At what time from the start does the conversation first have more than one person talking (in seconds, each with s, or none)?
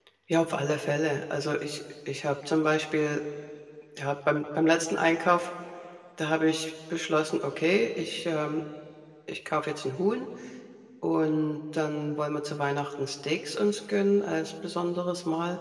none